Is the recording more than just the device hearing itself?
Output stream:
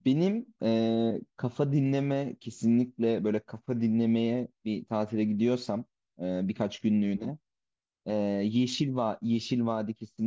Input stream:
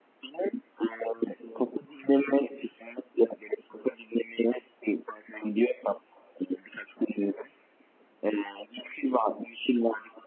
No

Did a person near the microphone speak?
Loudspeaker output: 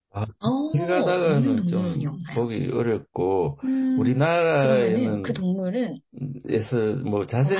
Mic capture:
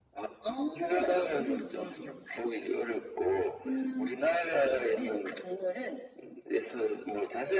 No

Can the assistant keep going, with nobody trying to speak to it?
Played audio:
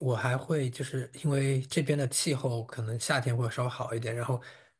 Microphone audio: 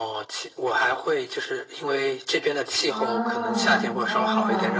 No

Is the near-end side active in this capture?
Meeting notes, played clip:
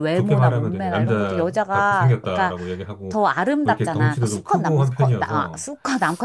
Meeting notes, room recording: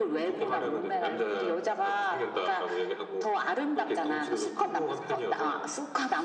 No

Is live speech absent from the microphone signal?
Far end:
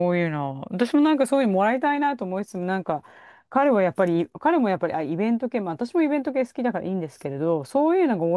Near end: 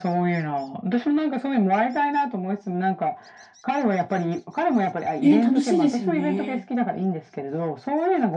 No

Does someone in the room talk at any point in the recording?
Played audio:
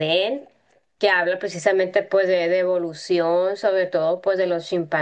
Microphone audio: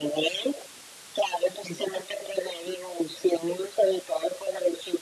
No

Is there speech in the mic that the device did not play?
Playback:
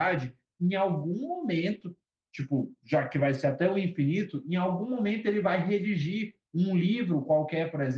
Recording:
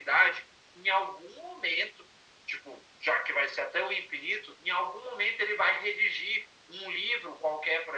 No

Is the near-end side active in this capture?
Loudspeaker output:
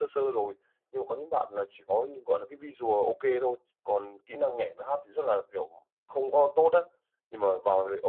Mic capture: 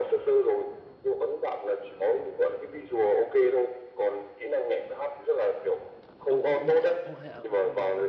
Yes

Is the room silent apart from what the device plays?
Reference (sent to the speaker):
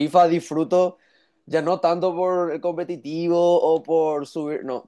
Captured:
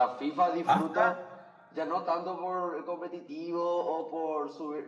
No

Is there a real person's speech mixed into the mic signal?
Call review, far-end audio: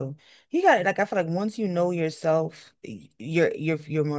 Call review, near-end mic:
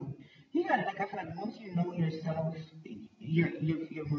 No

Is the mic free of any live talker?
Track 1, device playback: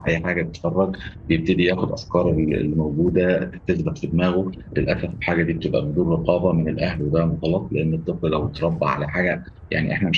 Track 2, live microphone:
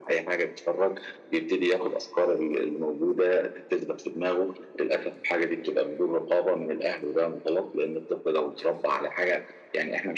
Yes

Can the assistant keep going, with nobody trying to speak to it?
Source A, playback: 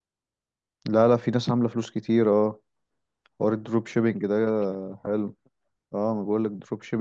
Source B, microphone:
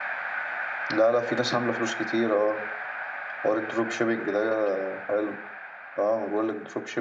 Yes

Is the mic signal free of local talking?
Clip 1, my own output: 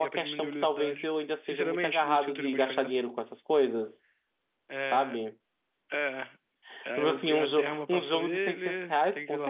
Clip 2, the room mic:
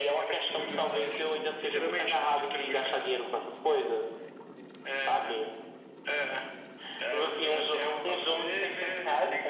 Yes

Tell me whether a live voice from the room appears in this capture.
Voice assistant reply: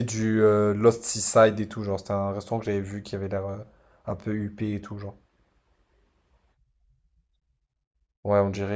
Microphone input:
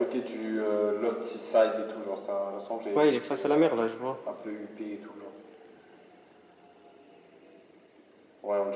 Yes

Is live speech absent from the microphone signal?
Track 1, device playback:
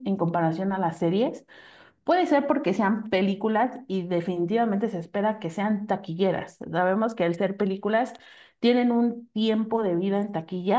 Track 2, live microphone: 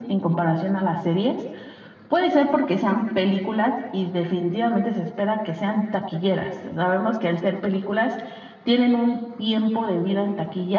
Yes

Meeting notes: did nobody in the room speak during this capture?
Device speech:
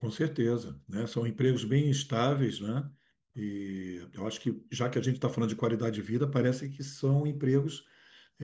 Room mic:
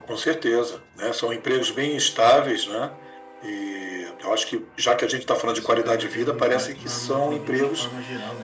No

